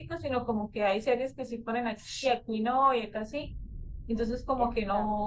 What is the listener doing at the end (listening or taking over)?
listening